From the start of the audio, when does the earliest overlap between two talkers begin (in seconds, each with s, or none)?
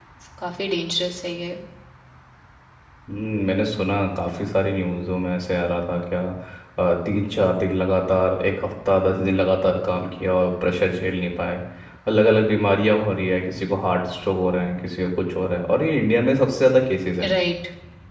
none